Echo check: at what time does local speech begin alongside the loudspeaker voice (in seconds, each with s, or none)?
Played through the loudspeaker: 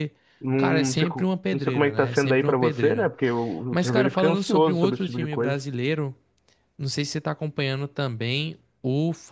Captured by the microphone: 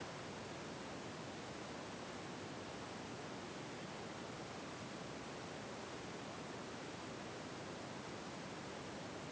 none